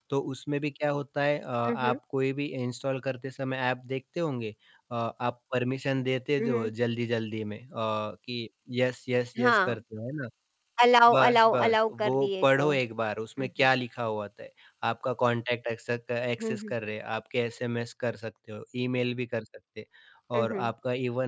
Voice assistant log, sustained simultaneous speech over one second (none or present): present